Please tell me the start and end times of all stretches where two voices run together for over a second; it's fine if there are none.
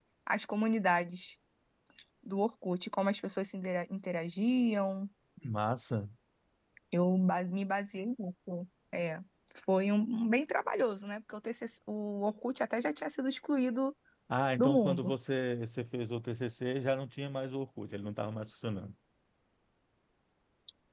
none

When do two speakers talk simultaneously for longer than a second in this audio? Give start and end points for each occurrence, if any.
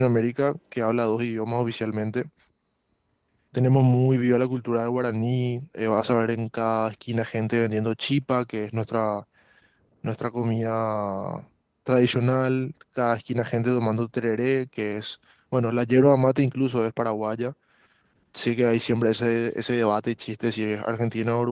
none

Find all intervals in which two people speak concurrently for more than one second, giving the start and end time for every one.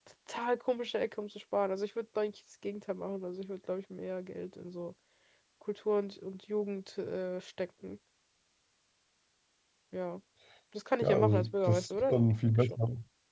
11.0-12.8

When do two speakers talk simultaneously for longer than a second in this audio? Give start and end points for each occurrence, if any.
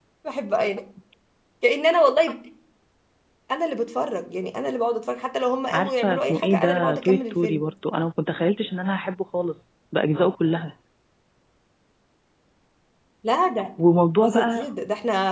5.7-7.6

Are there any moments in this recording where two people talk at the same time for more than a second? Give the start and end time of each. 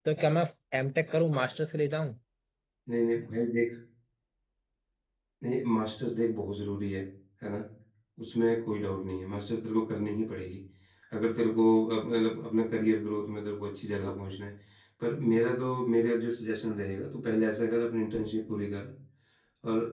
none

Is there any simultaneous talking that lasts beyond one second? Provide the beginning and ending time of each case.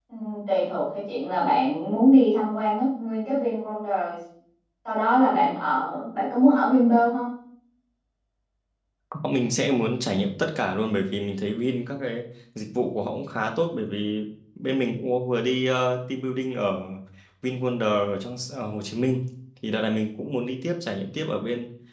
none

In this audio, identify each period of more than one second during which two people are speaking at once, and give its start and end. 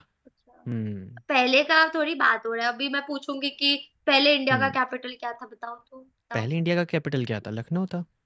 none

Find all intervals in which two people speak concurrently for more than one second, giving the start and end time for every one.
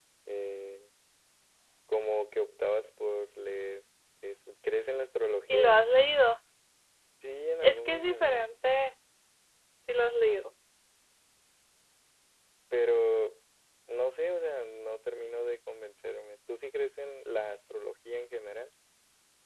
7.6-8.8

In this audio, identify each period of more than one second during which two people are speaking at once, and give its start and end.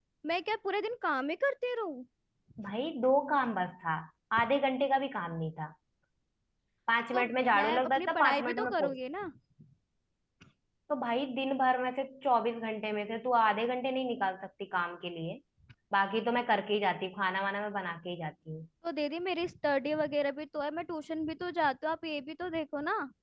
7.1-9.0

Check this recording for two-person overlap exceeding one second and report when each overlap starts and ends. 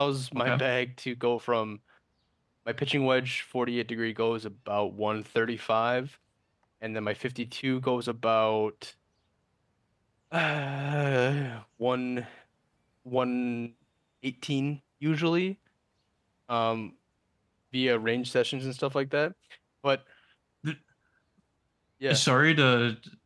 none

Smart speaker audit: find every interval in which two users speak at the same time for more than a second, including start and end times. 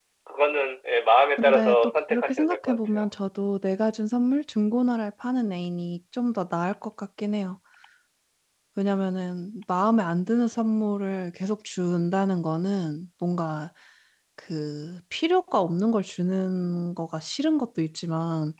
1.4-3.0

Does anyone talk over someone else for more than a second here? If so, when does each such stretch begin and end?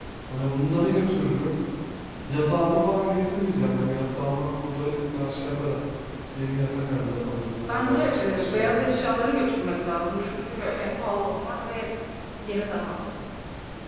7.7-8.9

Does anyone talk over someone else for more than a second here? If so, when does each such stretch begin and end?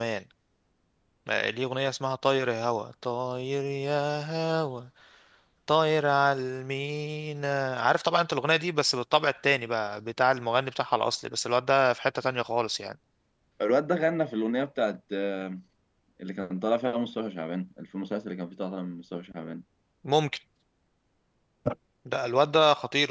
none

